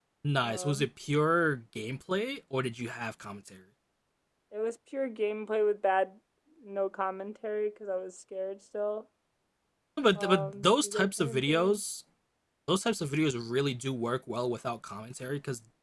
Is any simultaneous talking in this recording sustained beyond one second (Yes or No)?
Yes